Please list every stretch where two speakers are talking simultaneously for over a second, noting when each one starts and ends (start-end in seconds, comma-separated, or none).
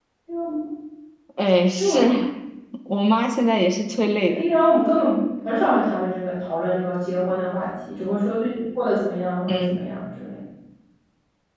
none